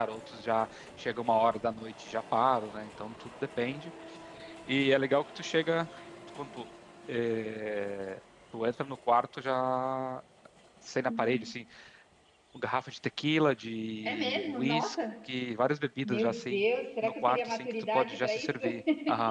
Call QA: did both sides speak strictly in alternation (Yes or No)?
No